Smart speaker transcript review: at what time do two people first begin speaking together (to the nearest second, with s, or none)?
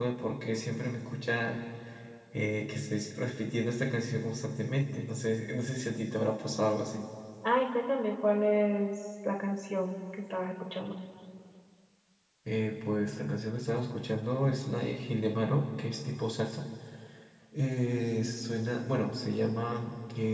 none